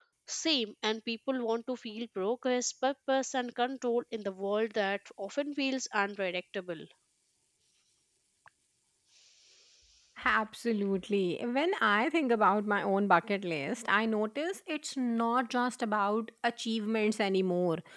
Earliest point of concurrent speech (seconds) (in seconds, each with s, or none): none